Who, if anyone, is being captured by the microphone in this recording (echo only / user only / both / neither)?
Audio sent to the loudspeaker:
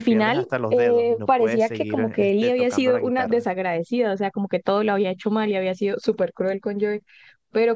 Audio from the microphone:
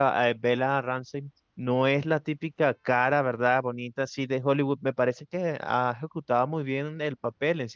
user only